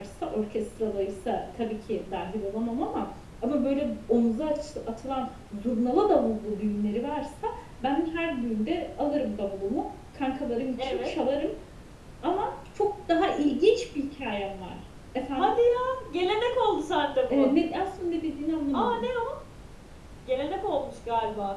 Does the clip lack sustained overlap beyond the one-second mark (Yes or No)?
Yes